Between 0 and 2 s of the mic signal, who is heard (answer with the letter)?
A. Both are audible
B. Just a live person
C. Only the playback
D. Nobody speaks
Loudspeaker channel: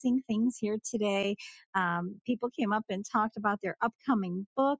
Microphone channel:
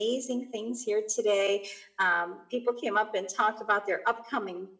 C